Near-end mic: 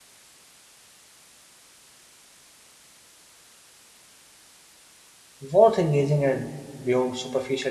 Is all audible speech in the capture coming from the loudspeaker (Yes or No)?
No